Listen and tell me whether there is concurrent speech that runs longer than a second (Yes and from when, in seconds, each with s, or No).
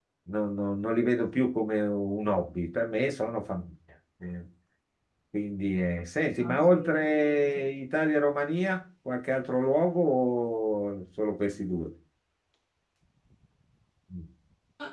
Yes, from 6.4 s